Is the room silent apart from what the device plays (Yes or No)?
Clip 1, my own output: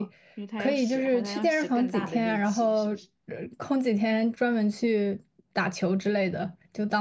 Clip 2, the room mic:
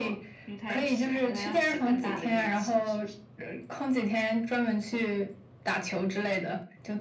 Yes